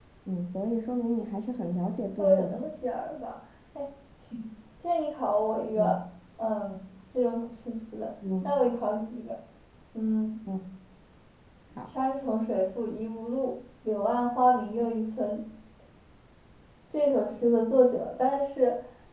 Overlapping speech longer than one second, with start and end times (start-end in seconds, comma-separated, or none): none